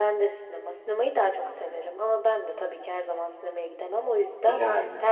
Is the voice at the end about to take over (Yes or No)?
No